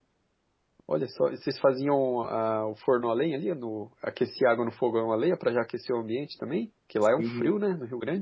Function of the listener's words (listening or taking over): taking over